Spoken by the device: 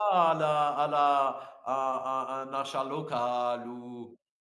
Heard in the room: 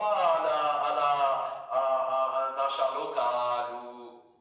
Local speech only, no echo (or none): none